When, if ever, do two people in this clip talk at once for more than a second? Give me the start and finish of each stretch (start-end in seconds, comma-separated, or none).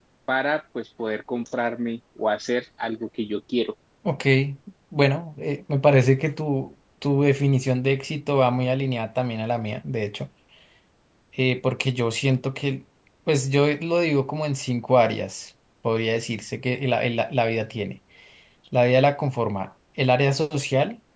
none